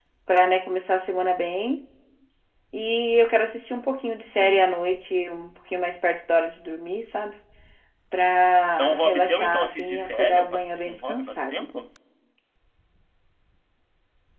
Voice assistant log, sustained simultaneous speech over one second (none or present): present